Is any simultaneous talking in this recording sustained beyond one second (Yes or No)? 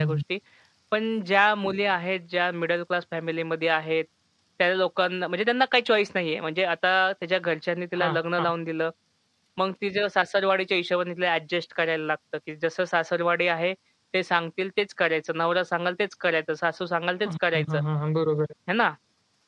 No